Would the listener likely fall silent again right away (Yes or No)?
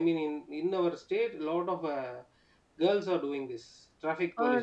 No